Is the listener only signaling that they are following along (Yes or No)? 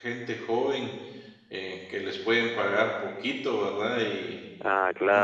No